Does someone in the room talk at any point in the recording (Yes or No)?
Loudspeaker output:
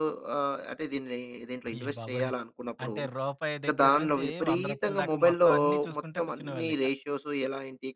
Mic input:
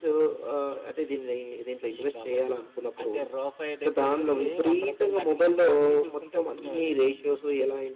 No